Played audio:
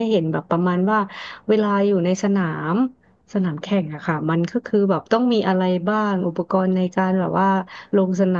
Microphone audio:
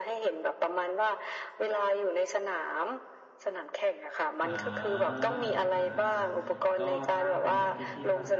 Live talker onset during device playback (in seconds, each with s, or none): 4.4 s